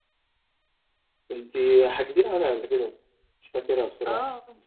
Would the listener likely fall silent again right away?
No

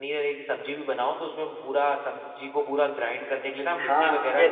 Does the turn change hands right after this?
Yes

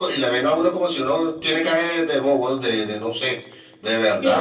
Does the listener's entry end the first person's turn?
Yes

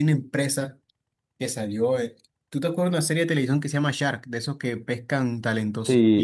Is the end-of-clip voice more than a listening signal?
No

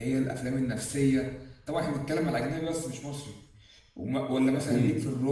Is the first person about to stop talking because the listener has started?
No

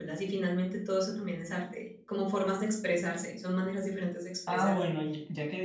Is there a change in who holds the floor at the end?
Yes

